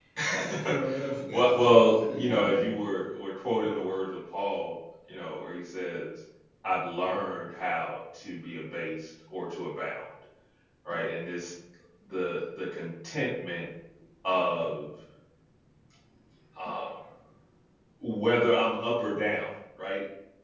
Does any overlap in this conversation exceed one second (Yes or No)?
Yes